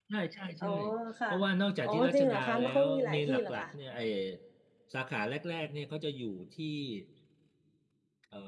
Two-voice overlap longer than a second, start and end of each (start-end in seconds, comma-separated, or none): 1.8-3.7